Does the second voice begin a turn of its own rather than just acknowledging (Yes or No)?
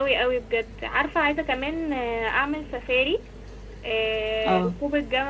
No